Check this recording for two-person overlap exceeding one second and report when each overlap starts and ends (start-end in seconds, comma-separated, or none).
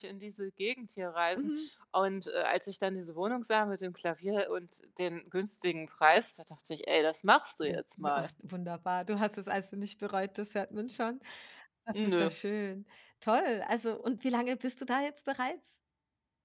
none